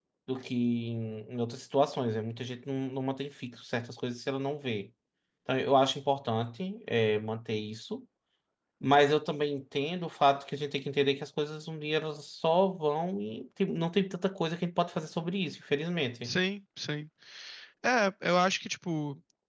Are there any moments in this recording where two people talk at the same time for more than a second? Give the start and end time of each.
none

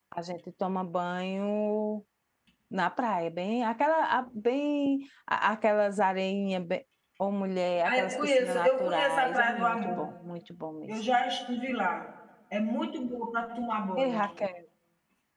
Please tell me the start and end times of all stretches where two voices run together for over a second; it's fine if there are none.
7.9-10.1

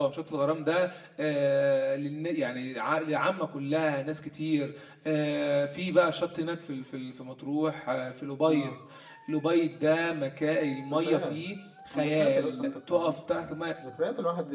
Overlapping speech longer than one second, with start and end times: 12.0-13.2

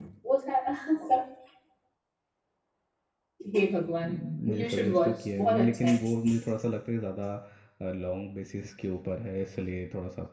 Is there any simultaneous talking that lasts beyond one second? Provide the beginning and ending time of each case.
4.0-5.9

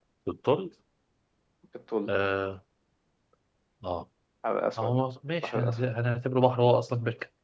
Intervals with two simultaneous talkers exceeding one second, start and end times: none

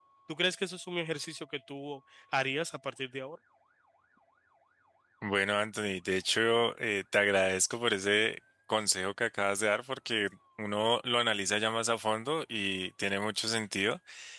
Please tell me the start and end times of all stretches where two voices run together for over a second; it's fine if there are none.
none

